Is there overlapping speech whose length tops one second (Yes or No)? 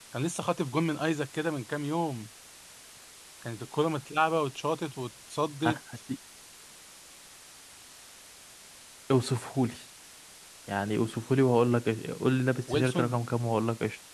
No